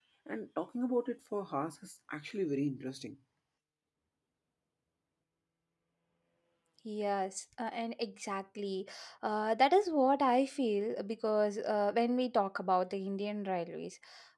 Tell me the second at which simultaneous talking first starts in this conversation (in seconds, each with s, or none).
none